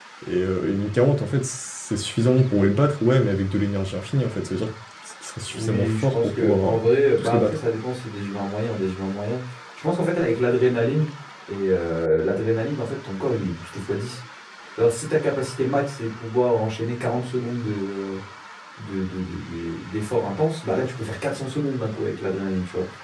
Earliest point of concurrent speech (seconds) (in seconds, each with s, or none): 5.5 s